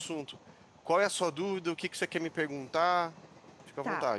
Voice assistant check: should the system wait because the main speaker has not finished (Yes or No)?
No